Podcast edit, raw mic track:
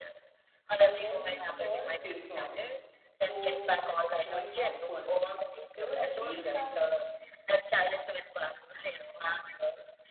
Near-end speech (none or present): present